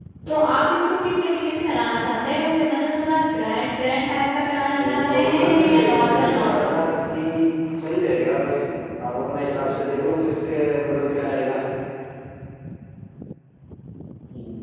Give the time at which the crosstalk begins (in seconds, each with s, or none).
4.7 s